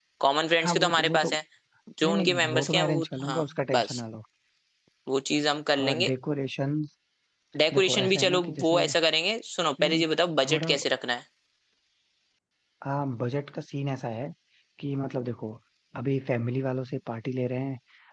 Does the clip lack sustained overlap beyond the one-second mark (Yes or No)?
No